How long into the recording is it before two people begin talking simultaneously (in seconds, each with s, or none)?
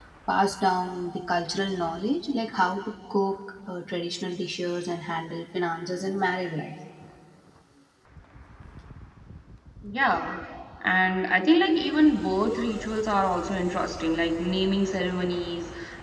none